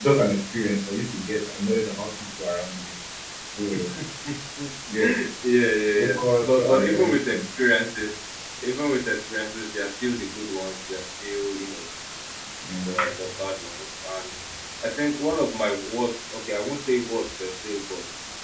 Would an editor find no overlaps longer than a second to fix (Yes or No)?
No